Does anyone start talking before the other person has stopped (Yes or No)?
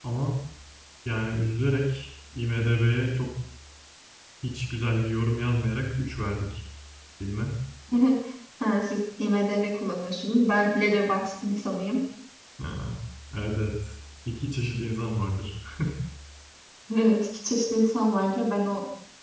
No